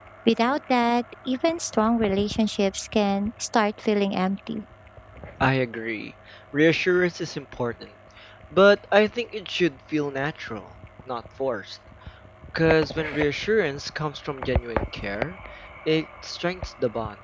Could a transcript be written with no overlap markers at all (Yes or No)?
Yes